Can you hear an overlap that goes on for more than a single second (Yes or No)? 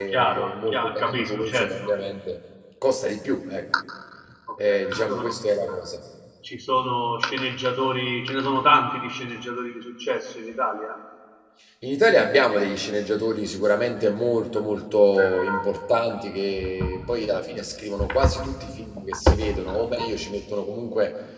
Yes